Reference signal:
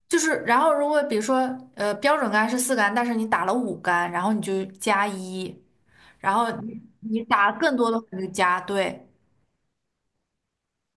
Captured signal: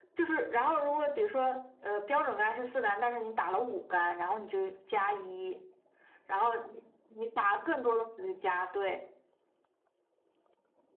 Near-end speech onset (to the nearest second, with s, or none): none